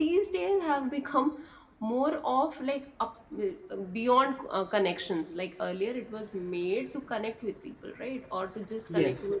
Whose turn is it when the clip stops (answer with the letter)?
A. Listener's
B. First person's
B